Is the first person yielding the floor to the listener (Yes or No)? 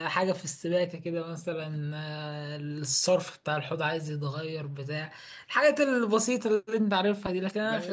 Yes